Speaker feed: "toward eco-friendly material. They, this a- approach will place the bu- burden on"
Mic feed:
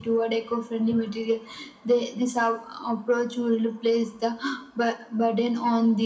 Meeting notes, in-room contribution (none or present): none